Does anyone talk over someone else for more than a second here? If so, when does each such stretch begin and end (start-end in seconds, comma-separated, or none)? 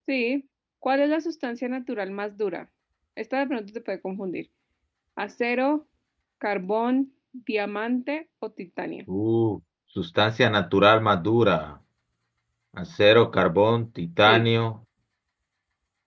none